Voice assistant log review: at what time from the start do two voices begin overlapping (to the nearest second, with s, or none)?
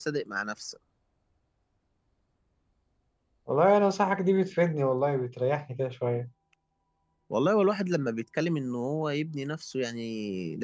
none